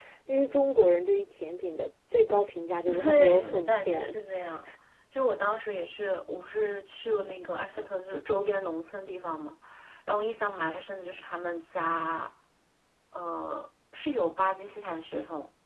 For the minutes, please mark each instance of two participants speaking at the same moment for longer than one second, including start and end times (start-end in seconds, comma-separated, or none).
2.9-4.1